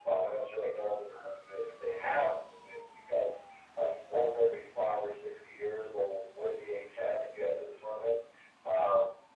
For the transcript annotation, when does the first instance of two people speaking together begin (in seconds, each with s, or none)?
none